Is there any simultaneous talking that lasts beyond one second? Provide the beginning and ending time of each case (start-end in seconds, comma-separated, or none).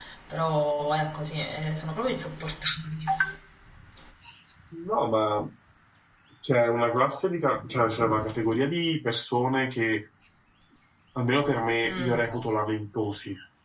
none